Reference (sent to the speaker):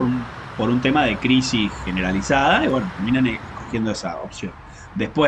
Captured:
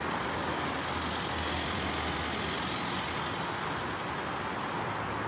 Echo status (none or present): none